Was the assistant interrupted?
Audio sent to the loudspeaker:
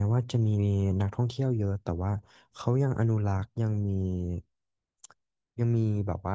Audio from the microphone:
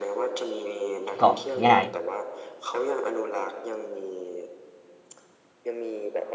Yes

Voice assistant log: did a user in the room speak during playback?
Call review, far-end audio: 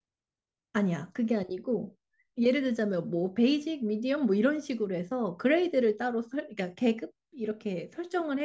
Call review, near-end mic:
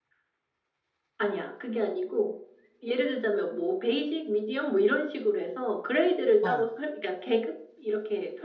Yes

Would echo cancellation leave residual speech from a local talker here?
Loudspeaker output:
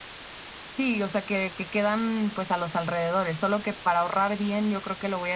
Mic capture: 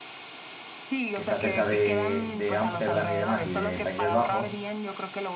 Yes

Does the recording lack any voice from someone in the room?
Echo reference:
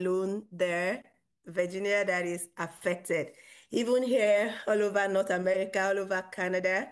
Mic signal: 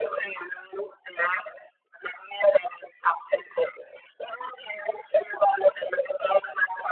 Yes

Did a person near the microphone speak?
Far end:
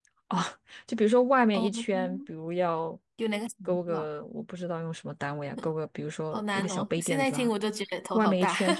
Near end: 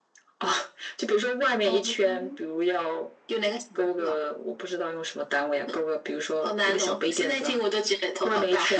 No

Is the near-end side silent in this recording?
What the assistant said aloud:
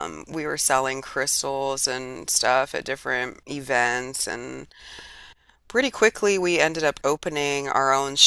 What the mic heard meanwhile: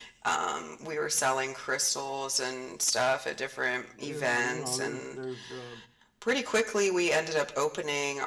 No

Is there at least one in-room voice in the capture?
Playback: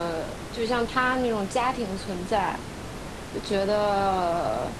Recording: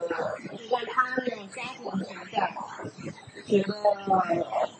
No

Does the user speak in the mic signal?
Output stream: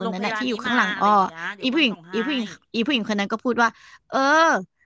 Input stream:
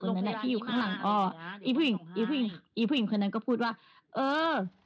No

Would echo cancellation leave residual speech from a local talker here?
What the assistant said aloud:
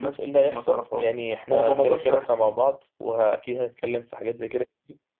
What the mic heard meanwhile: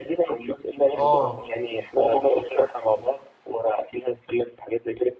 Yes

